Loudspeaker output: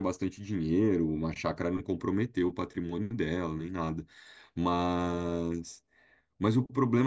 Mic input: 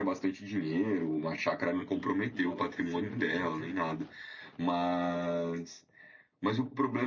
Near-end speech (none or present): present